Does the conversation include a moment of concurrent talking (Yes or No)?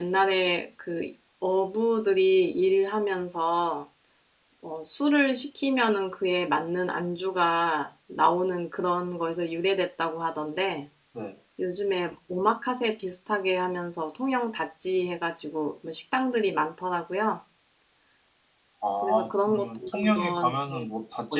Yes